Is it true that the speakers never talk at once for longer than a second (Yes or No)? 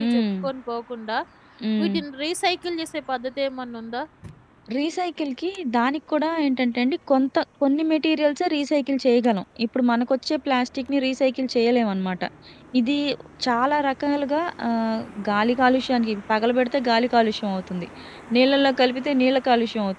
Yes